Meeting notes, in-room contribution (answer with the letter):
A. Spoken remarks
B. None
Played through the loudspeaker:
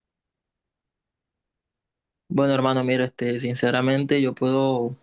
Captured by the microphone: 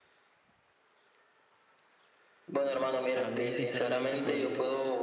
A